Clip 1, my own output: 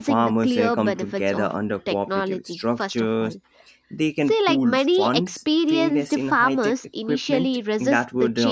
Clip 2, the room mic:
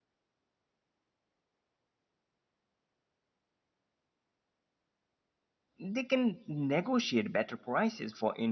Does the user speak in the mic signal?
Yes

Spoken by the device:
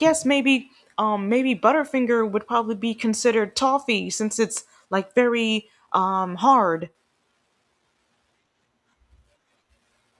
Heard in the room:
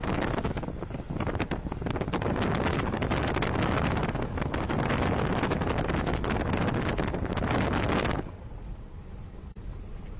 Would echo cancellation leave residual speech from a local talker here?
No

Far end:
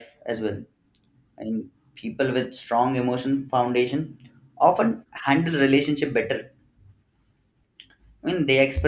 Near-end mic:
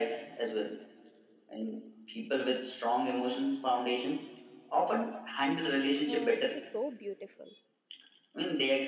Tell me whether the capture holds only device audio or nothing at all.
No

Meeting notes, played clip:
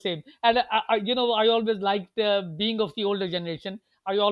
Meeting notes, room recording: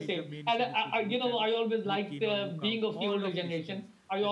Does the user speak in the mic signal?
Yes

